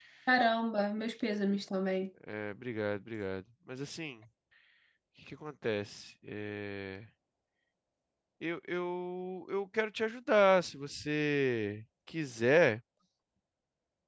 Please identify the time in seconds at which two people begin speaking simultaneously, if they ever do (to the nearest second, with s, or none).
none